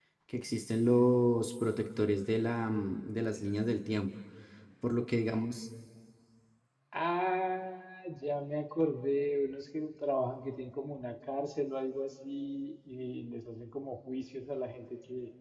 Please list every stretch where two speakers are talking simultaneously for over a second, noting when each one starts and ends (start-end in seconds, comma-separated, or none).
none